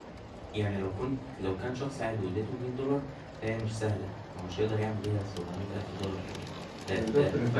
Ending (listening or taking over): taking over